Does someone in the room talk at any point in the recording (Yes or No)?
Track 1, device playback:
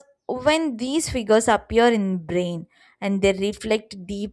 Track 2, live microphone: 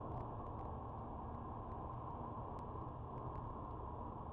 No